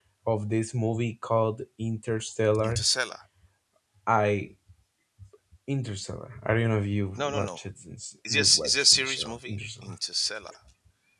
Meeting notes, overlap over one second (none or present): present